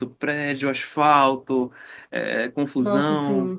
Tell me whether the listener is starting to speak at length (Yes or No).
No